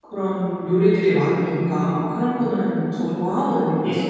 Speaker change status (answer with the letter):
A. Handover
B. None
B